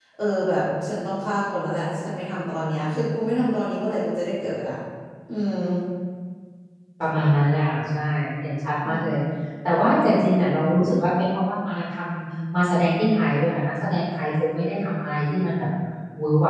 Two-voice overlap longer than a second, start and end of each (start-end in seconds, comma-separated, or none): none